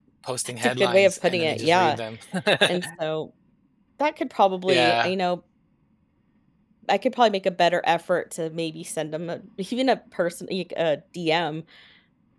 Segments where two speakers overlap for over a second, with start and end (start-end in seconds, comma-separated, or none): 0.6-2.0